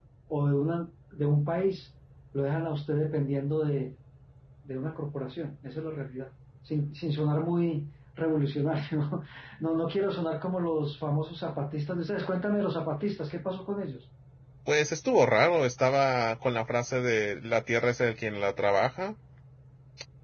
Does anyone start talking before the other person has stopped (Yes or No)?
No